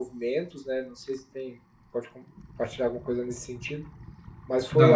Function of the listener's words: listening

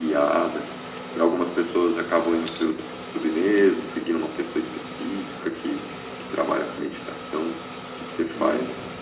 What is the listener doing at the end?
taking over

